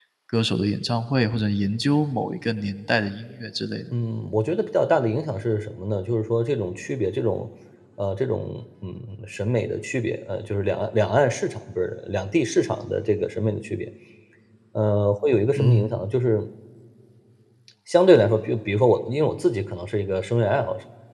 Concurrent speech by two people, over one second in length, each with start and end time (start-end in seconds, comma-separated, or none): none